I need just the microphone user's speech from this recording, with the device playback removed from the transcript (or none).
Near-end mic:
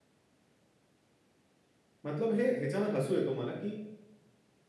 मतलब हे ह्याच्यावर हसू येतो मला की